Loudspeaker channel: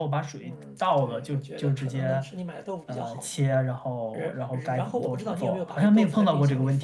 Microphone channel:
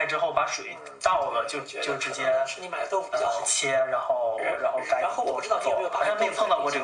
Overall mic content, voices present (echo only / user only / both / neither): echo only